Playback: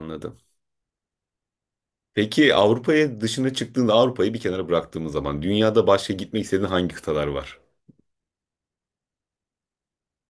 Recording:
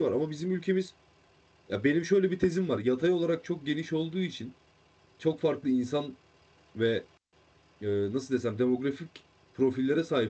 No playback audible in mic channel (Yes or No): Yes